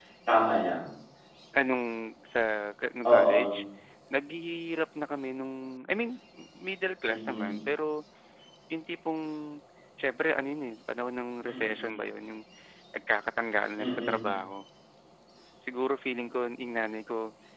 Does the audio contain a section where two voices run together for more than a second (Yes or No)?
No